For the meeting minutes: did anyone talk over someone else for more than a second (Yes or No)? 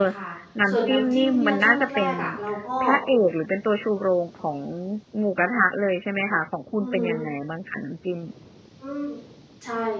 Yes